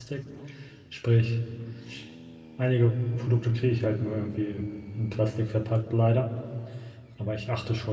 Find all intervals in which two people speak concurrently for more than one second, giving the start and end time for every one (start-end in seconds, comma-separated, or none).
none